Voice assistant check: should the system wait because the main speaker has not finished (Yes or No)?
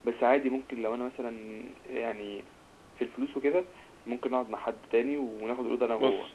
Yes